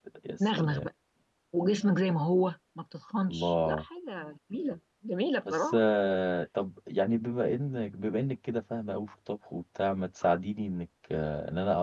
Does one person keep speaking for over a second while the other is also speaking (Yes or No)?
No